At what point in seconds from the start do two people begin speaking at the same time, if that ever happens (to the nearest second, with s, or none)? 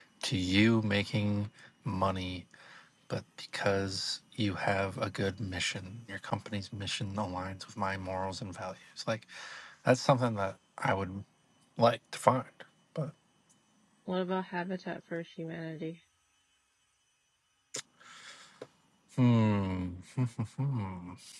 none